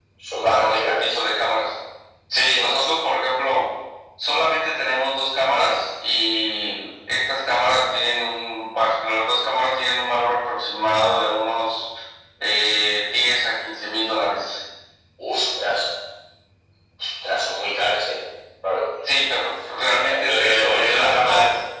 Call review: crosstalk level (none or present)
present